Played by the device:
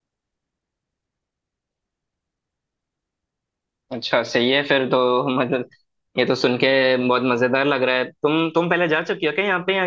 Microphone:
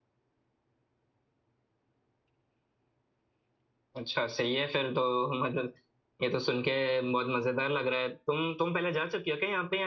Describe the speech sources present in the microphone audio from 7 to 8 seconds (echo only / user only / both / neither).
echo only